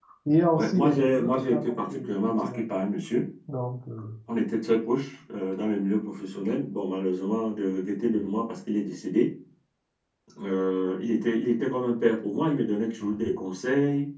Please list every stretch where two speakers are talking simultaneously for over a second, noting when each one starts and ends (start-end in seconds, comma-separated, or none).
0.5-2.6